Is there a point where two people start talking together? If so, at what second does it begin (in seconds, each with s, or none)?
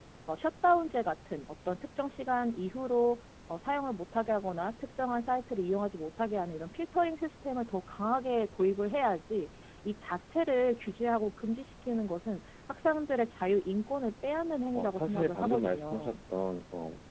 14.7 s